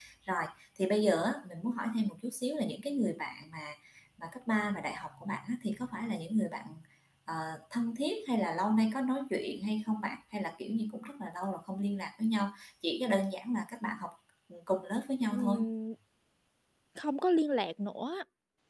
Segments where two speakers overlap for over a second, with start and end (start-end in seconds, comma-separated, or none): none